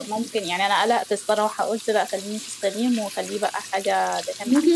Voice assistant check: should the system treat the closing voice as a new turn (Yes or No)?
Yes